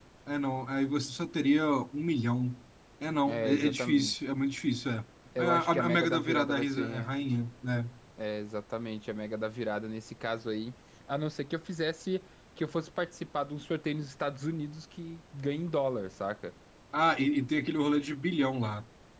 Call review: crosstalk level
present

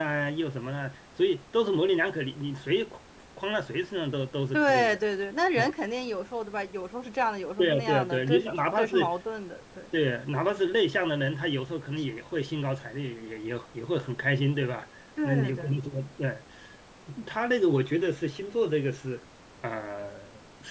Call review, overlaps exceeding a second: present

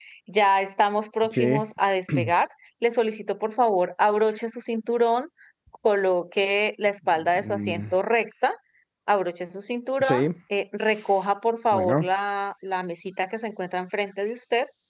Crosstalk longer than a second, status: none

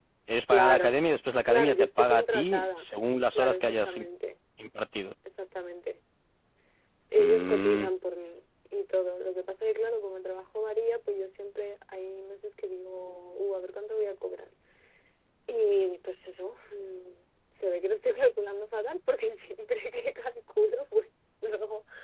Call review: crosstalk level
present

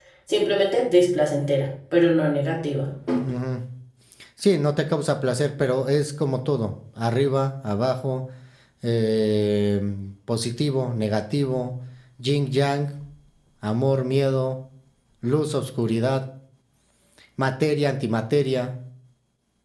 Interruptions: none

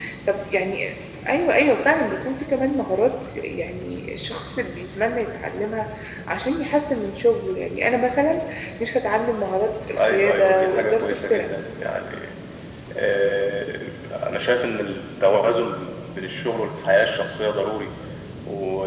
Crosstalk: present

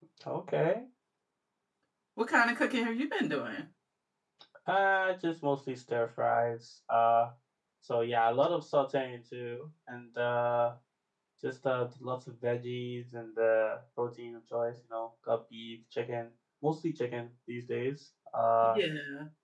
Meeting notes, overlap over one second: none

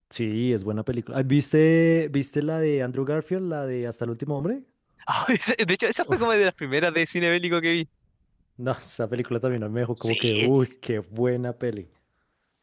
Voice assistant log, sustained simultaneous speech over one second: none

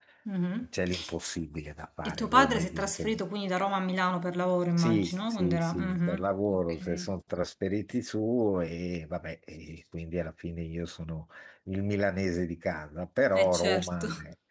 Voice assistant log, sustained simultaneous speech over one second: present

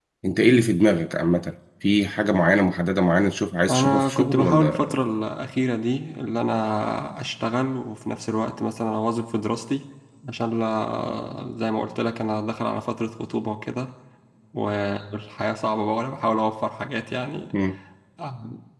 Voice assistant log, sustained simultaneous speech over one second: present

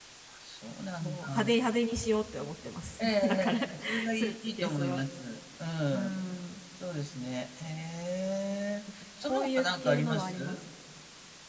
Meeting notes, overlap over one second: present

